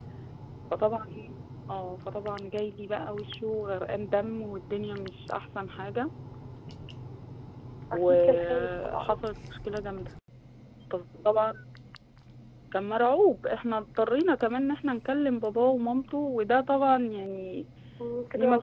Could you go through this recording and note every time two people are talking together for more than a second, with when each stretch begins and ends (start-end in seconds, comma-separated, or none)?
7.9-9.2